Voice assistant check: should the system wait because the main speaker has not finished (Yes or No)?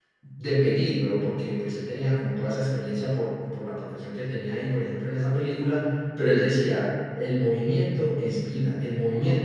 Yes